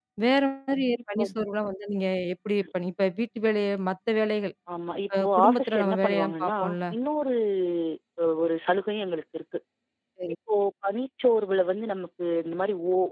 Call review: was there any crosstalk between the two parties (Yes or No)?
Yes